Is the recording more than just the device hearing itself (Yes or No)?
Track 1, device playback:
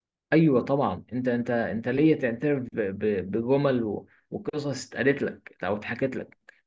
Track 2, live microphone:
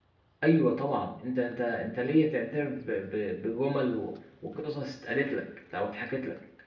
No